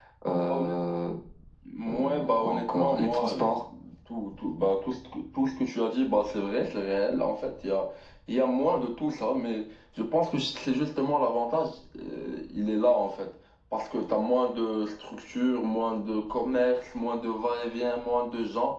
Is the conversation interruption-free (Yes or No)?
No